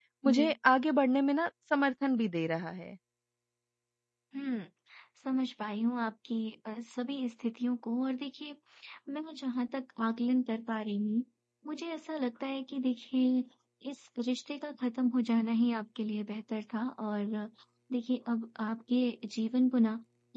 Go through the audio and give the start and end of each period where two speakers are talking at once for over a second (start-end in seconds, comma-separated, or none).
none